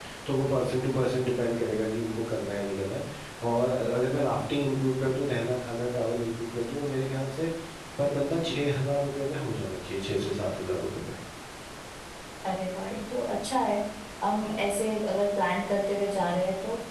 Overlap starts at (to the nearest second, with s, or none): none